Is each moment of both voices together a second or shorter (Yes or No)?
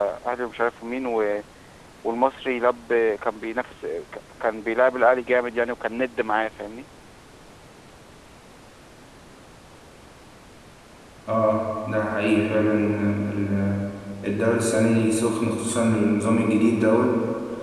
Yes